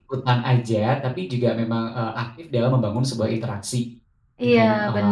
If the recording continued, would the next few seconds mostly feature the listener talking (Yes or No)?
Yes